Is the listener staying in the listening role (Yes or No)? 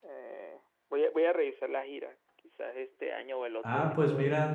No